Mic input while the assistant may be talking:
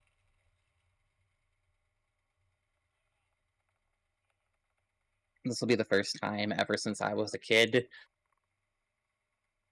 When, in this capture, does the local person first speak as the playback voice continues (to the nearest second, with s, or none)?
5 s